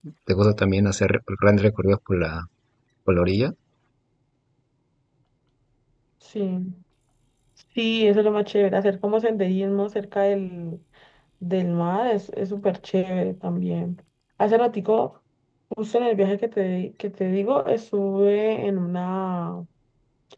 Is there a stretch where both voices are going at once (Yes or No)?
No